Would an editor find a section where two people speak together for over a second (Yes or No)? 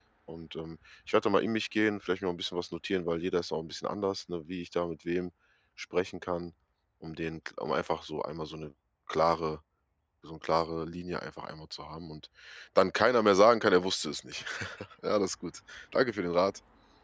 No